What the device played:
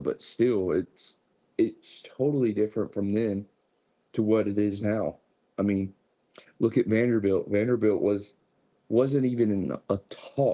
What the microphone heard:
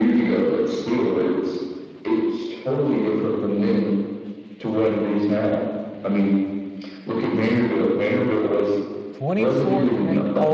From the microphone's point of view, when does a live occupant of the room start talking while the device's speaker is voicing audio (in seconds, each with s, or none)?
9.2 s